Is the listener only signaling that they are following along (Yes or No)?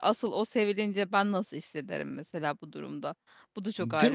No